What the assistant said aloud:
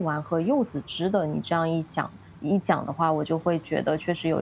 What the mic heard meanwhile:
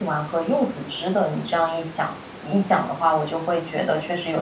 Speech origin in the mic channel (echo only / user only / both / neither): echo only